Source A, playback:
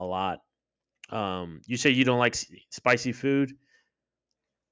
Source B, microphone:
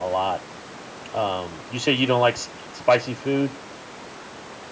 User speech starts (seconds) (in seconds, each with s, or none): none